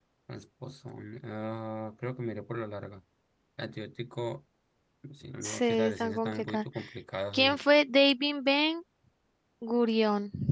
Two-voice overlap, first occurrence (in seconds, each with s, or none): 5.4 s